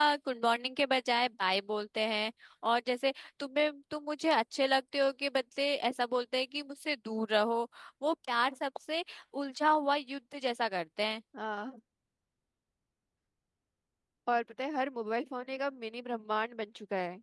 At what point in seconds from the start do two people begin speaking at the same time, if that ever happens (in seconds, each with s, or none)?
none